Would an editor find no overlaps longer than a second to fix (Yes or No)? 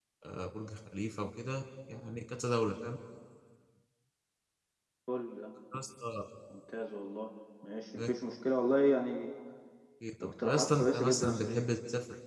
No